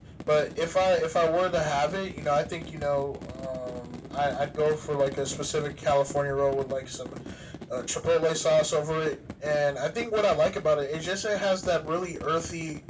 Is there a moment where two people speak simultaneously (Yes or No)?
No